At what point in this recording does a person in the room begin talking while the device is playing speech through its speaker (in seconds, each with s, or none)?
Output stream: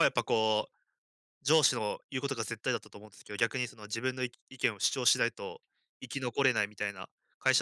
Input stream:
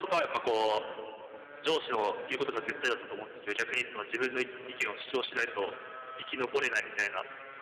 none